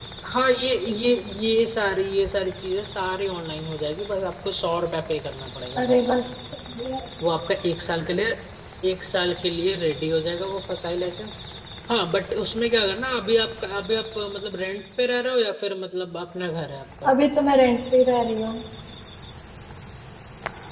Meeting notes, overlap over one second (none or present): none